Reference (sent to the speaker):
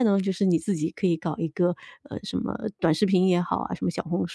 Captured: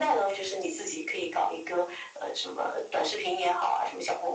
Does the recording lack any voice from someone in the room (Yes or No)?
Yes